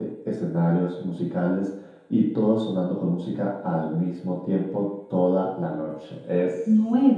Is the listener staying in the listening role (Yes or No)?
No